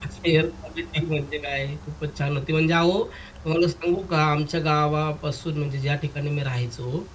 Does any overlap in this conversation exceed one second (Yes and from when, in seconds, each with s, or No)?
No